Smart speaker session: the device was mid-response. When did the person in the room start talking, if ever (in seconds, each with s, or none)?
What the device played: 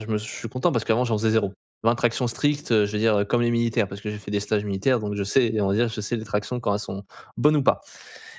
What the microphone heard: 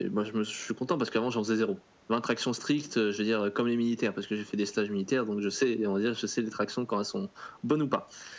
none